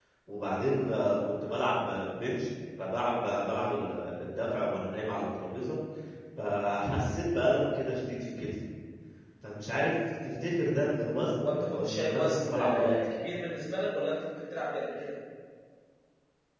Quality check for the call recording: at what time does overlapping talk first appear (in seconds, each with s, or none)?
11.3 s